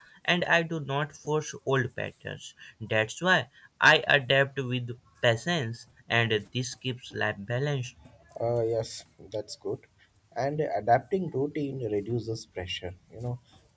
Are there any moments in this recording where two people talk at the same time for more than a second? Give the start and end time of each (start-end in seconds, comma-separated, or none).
none